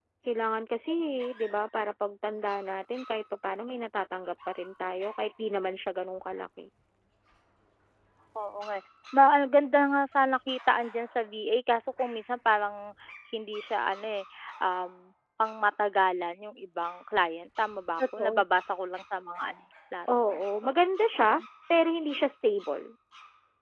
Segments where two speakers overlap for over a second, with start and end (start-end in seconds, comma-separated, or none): none